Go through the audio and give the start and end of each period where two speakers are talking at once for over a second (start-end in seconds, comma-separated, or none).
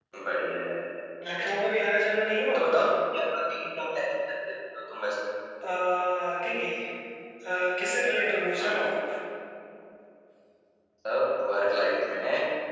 none